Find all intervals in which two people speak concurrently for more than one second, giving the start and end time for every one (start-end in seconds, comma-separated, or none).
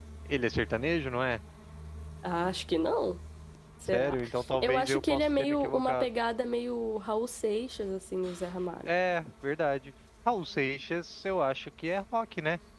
4.6-6.0